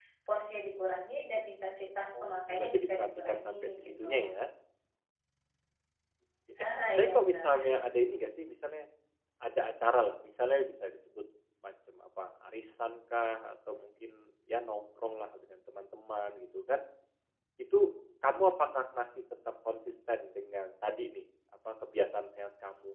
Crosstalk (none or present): present